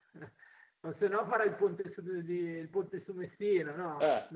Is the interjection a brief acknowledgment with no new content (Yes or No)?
No